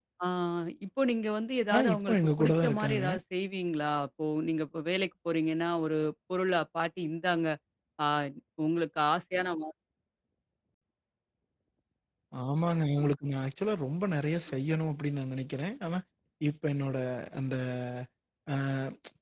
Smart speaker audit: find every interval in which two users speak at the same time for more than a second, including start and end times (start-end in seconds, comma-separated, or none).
1.7-3.0